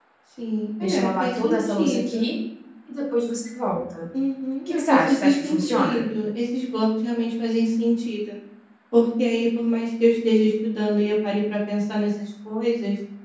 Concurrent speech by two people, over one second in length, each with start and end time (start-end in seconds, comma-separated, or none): 0.8-2.3, 4.7-6.1